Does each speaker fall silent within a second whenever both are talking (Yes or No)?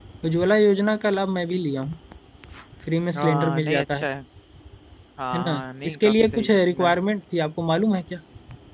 No